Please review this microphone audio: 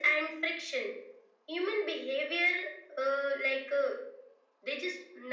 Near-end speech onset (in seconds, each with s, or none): none